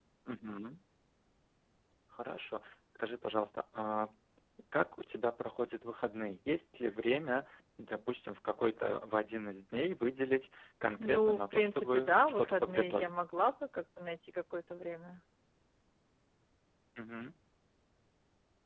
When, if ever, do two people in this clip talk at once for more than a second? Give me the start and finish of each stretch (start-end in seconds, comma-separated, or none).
11.0-13.1